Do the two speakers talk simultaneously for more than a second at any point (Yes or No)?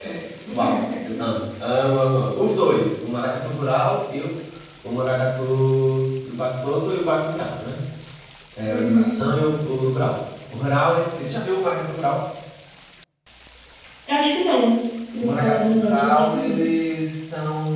Yes